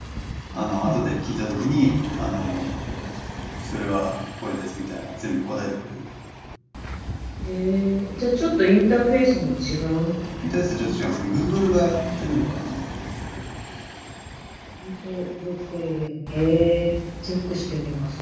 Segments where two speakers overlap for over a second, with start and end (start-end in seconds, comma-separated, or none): none